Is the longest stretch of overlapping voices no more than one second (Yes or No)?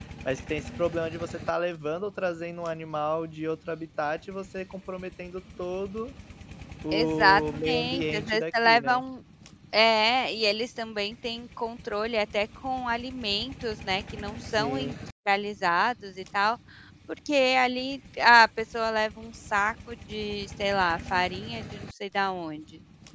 No